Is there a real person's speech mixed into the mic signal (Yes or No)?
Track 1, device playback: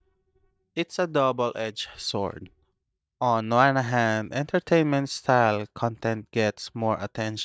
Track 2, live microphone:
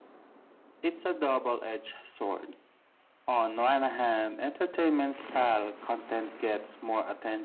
No